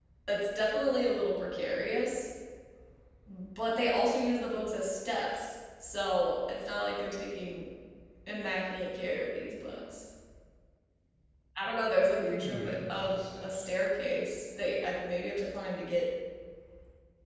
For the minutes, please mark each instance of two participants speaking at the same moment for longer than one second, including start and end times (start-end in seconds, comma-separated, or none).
12.2-13.5